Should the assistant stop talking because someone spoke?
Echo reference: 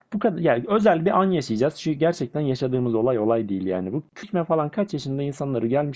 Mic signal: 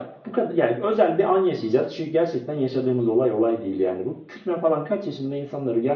No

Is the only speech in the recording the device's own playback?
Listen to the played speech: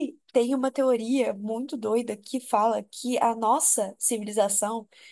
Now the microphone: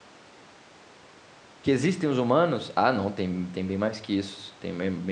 No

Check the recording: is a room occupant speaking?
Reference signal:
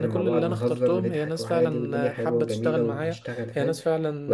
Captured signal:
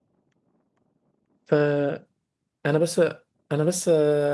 Yes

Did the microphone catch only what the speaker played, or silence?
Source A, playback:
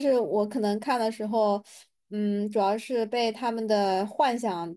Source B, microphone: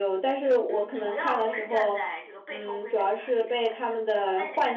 No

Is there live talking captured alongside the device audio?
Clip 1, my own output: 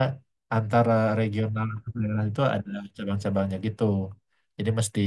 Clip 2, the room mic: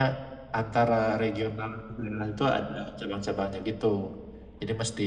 No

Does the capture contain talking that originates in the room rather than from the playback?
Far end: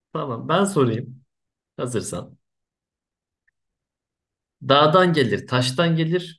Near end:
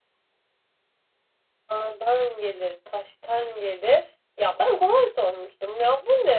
Yes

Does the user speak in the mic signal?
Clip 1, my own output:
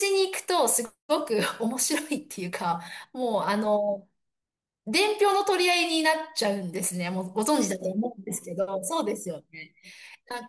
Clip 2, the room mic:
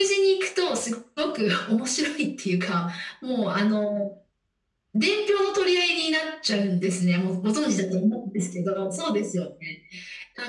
No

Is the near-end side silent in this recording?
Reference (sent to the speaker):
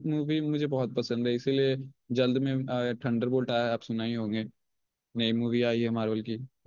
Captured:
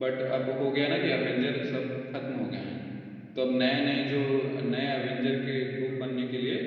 No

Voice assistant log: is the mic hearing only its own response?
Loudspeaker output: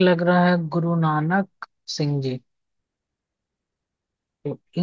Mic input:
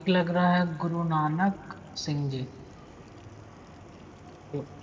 Yes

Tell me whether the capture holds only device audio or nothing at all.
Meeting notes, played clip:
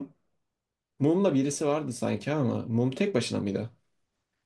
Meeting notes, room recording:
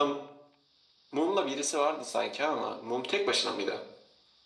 Yes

